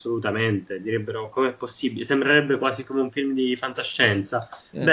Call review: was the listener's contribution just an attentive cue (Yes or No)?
Yes